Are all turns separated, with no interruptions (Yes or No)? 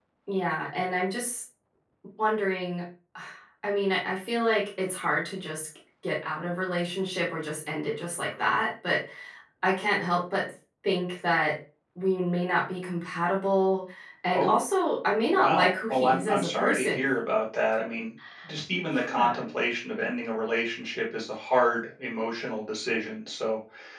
No